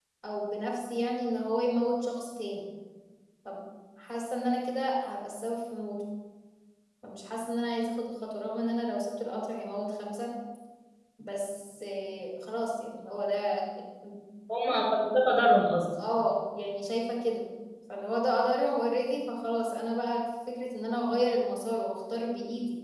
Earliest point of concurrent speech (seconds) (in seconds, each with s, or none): none